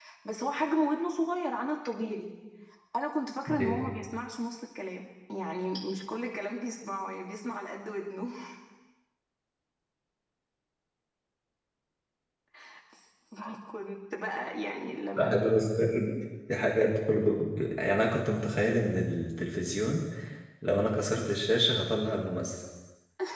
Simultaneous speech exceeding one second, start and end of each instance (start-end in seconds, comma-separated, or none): none